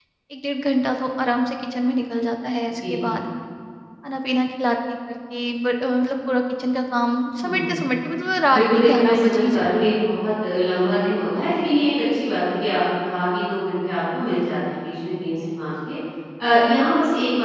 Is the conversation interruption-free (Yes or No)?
No